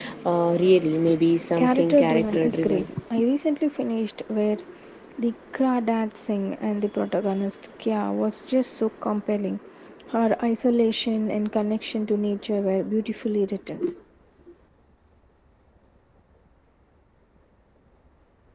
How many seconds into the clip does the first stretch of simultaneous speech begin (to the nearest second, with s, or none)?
2 s